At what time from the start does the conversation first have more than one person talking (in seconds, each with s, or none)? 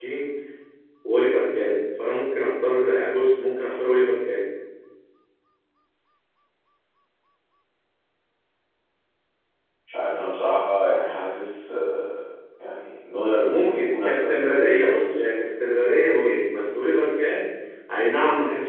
13.5 s